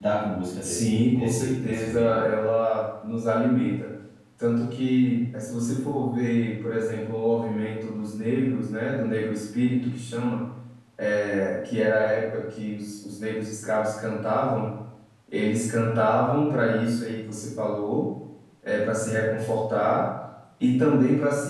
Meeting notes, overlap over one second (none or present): present